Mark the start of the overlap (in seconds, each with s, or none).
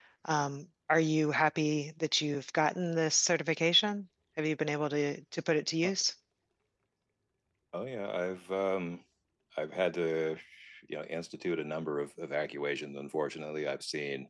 none